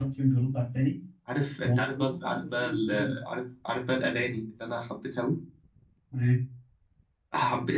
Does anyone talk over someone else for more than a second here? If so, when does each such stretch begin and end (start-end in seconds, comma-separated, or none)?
1.6-3.2